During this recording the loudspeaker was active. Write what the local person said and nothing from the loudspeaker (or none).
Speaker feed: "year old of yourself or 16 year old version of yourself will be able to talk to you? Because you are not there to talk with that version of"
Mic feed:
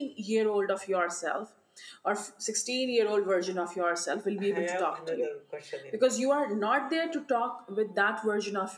I have another question in that.